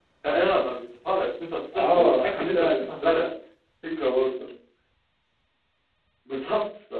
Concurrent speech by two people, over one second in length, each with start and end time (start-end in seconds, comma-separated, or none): 1.8-3.3